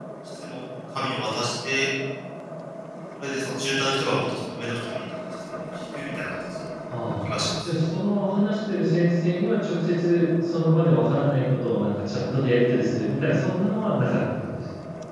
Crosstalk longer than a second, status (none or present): none